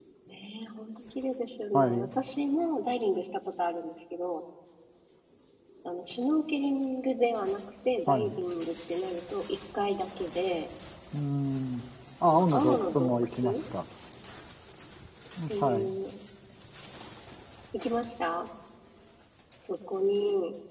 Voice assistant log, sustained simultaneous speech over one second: present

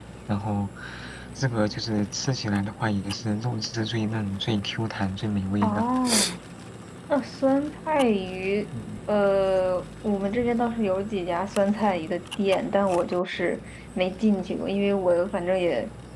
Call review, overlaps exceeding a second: none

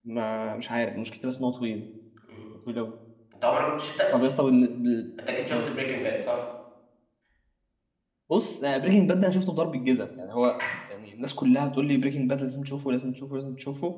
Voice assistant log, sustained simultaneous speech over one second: none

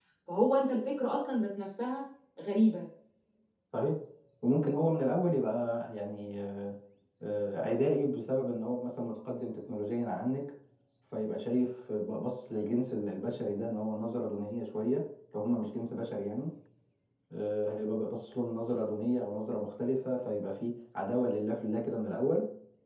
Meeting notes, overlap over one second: none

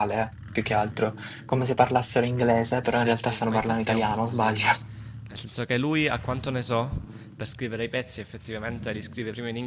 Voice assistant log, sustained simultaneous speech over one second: present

